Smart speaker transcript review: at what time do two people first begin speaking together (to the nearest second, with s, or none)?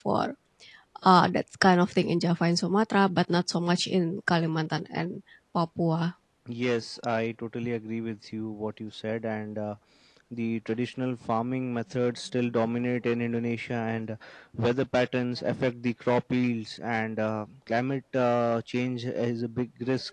none